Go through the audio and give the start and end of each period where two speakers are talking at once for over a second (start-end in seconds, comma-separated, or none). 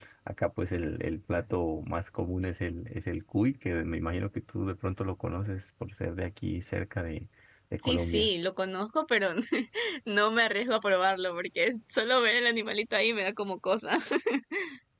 none